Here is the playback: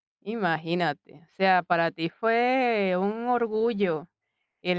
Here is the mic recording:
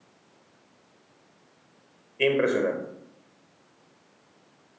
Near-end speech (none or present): present